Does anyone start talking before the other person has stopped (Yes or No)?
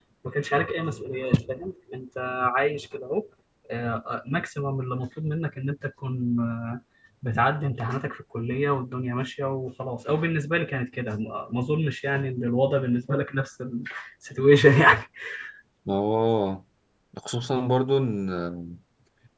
No